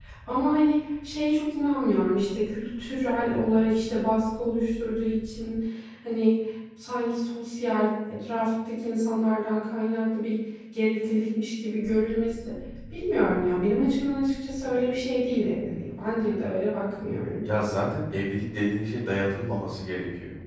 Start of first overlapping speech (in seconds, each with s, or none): none